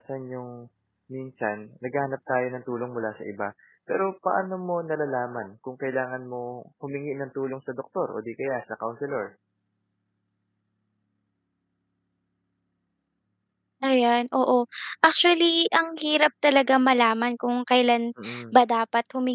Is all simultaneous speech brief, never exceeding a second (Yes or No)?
Yes